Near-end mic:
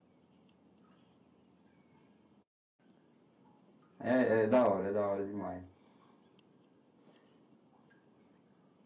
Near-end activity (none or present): present